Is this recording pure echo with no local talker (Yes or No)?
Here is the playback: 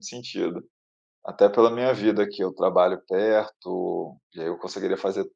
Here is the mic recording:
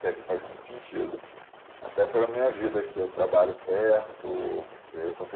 Yes